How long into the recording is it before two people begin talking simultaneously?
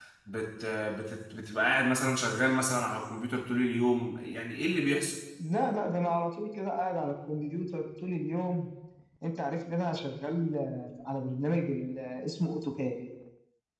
none

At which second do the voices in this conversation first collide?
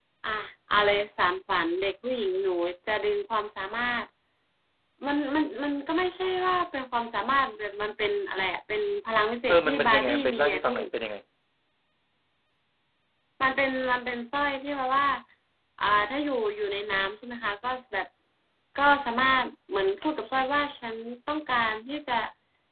9.5 s

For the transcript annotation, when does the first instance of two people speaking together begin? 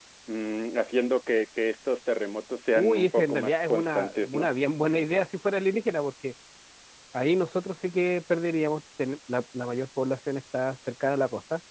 2.8 s

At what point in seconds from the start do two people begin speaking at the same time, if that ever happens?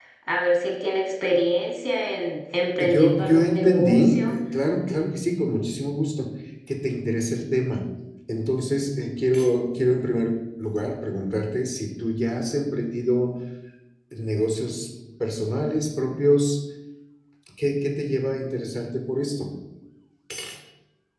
2.8 s

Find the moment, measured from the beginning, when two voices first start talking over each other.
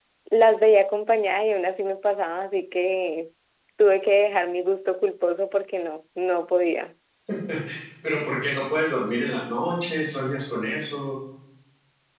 none

